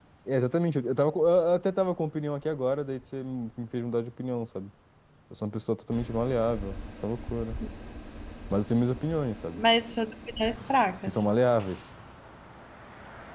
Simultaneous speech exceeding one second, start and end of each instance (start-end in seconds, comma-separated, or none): none